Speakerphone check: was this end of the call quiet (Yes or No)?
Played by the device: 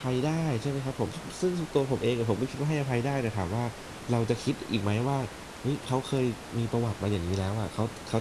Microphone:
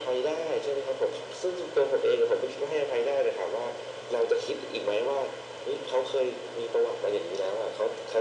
Yes